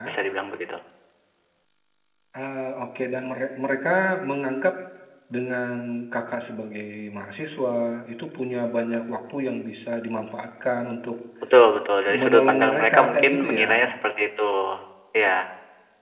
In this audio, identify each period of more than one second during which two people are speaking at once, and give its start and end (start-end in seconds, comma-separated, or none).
12.2-13.7